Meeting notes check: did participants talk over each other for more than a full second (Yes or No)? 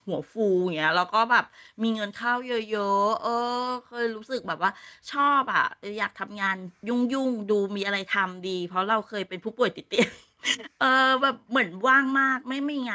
No